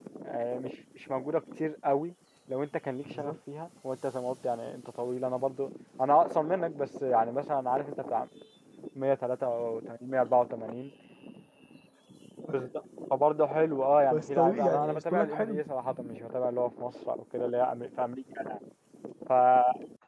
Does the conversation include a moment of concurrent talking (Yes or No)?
Yes